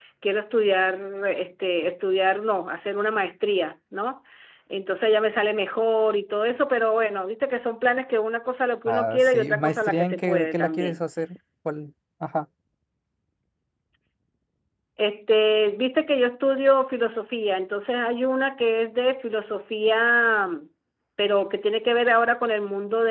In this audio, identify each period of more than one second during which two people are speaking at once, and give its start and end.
8.8-11.0

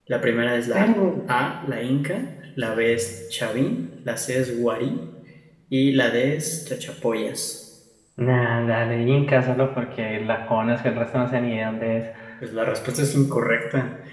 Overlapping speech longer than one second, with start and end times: none

